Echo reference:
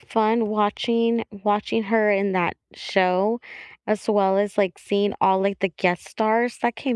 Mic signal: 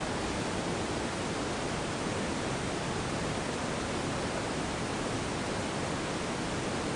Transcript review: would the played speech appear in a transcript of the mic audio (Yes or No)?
No